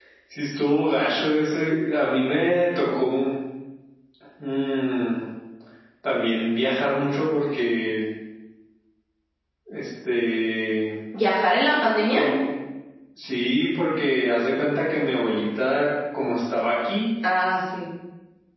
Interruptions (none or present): none